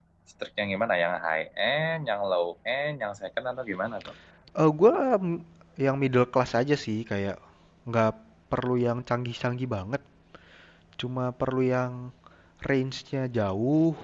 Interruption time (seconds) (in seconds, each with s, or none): none